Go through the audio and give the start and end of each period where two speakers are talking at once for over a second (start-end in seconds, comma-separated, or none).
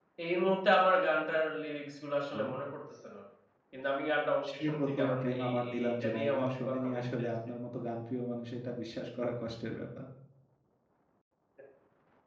4.6-7.3